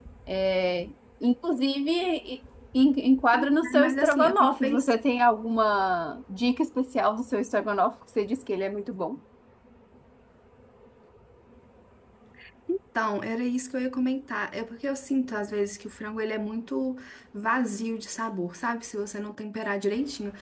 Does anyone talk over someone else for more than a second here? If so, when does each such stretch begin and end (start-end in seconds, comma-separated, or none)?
3.3-4.9